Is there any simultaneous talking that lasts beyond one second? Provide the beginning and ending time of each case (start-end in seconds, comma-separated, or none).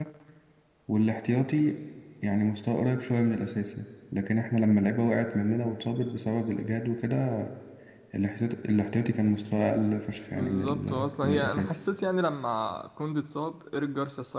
10.3-11.7